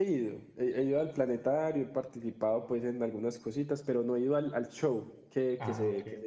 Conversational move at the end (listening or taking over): listening